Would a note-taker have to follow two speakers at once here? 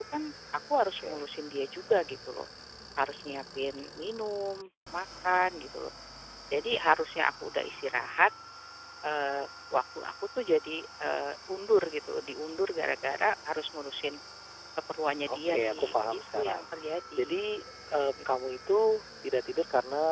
Yes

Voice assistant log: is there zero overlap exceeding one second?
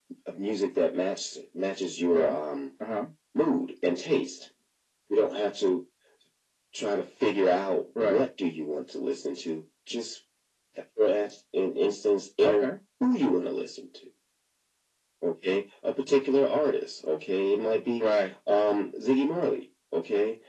Yes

